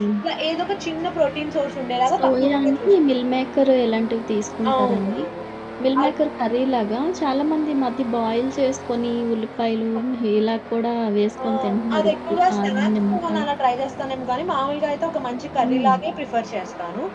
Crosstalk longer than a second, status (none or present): present